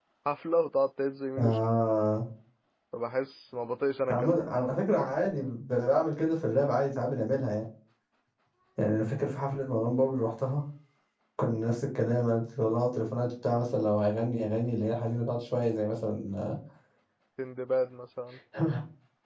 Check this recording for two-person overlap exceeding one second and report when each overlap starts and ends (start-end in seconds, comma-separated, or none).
none